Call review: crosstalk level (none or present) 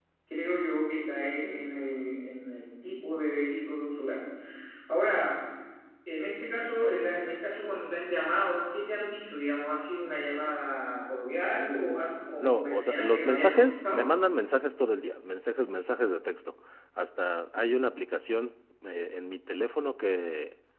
present